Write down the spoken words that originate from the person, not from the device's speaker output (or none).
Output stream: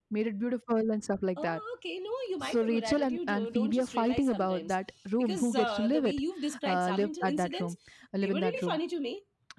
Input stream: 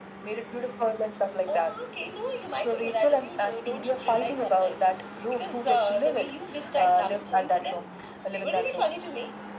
none